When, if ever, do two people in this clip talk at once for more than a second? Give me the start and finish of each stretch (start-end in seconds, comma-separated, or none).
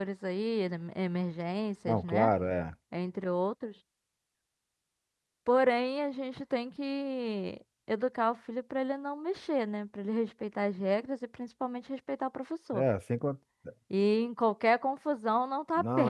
none